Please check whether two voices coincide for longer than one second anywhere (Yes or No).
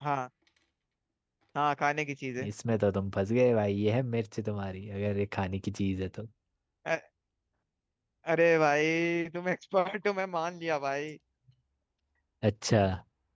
No